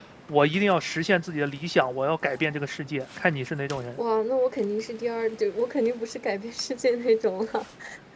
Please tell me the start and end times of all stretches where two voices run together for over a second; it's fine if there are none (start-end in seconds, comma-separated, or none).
none